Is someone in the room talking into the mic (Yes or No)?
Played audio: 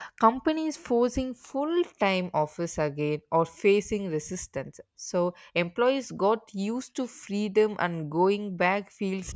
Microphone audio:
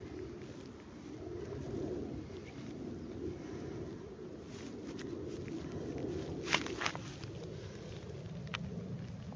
No